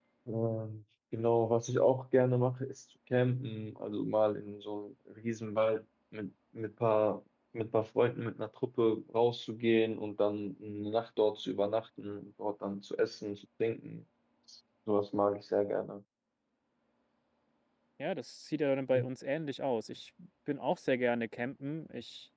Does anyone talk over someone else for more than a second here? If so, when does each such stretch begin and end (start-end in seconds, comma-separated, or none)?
none